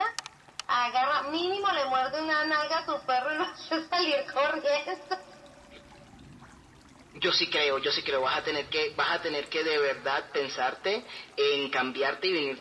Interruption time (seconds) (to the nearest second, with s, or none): none